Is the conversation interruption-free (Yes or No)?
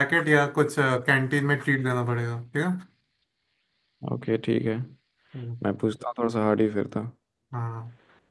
Yes